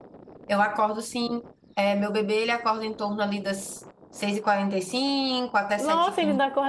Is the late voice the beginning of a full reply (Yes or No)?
Yes